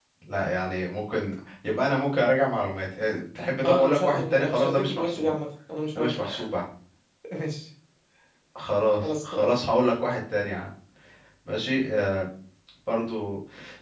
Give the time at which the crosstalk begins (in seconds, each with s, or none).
3.6 s